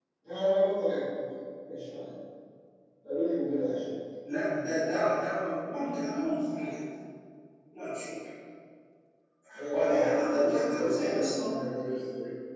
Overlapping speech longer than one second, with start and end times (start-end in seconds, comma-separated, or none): 9.7-11.5